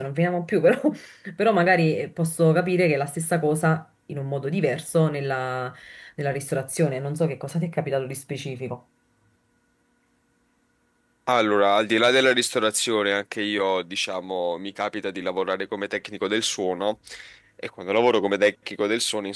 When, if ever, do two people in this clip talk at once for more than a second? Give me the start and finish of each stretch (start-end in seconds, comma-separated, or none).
none